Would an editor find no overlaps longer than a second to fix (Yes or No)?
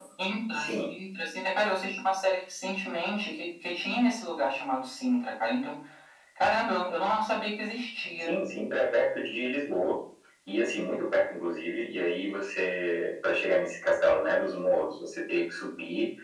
Yes